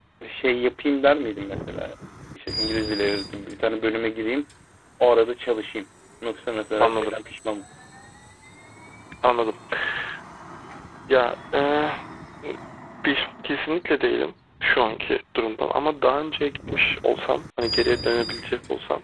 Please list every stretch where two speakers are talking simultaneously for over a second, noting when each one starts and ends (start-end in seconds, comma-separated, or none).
none